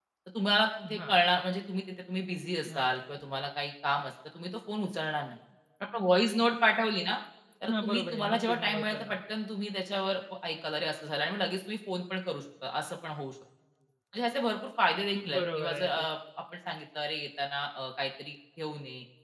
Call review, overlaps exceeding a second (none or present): present